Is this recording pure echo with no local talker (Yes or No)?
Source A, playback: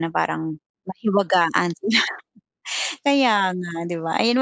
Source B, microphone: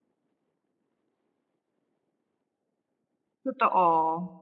No